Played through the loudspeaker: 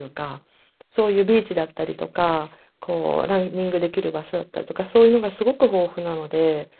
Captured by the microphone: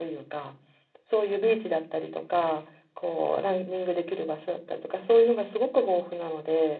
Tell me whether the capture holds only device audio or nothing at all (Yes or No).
Yes